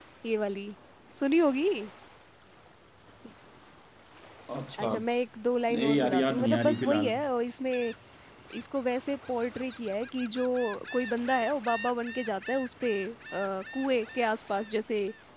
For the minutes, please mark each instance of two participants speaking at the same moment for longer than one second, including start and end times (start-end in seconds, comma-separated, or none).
5.7-7.1